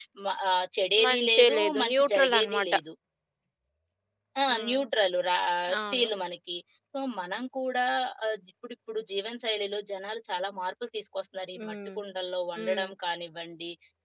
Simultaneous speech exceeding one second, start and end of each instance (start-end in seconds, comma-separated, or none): 1.0-2.7